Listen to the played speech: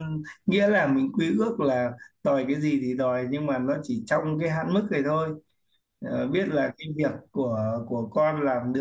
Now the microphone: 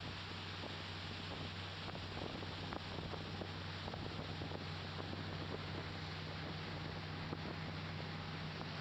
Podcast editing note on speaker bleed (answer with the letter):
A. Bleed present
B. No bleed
B